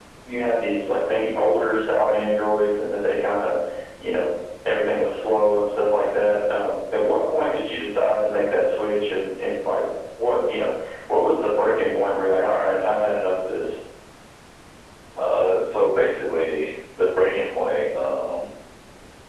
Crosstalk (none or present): none